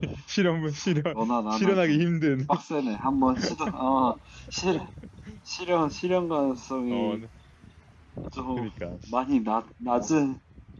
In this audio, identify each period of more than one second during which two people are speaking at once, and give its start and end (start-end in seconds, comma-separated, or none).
none